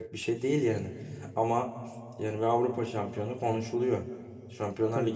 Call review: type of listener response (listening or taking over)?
listening